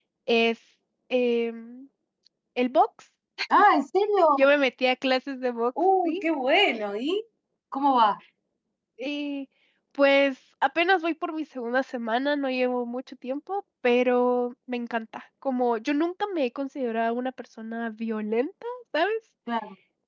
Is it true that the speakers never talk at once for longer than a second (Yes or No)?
Yes